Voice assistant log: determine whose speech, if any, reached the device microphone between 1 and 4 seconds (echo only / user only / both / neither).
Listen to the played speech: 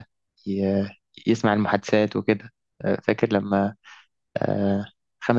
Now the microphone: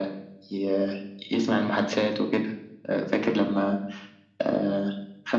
echo only